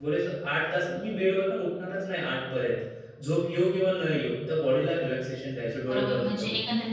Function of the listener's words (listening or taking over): taking over